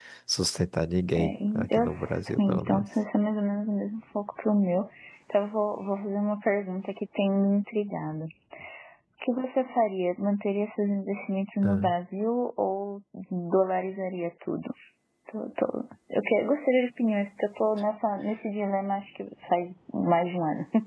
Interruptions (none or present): present